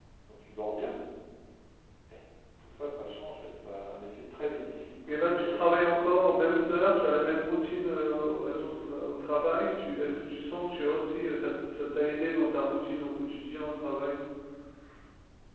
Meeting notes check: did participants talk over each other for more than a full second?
Yes, from 5.1 s

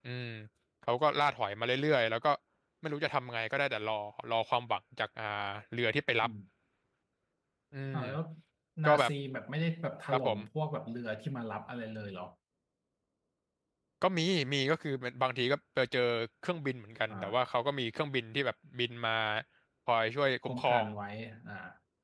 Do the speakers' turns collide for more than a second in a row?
No

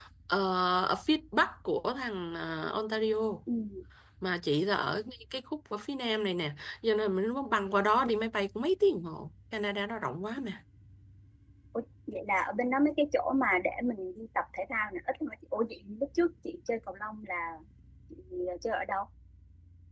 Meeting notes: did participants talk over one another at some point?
No

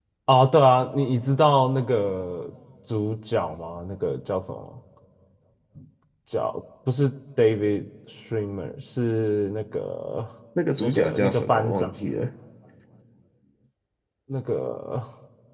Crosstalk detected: Yes, from 10.8 s

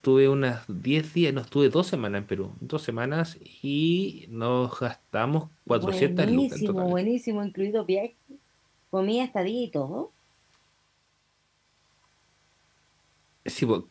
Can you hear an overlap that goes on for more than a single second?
Yes, from 5.7 s

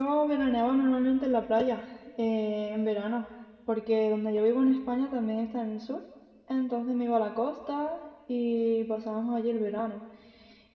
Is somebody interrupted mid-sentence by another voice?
No

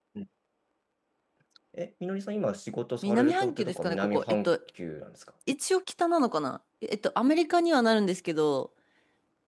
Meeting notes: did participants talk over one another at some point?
Yes, from 3.0 s

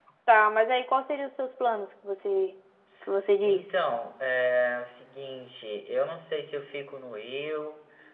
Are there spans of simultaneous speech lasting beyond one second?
No

